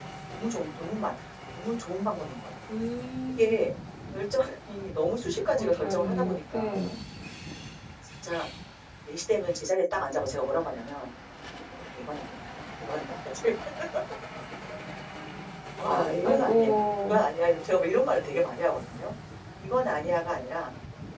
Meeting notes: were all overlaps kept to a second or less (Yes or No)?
No